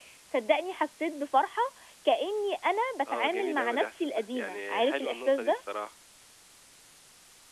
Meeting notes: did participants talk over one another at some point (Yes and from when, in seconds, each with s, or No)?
Yes, from 3.1 s